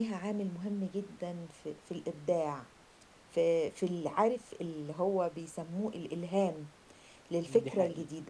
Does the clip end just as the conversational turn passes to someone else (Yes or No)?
No